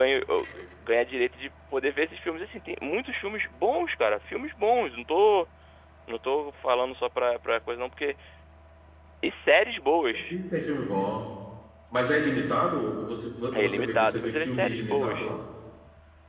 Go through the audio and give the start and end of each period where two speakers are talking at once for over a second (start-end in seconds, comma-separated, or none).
13.6-15.2